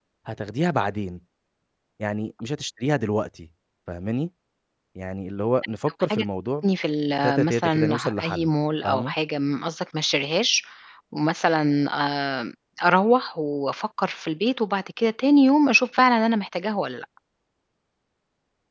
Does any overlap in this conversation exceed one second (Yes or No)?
Yes